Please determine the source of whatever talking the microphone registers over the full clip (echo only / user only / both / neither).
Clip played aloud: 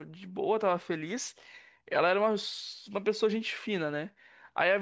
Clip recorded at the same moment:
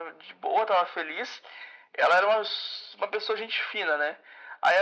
echo only